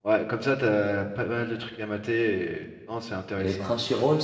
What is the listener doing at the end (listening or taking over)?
taking over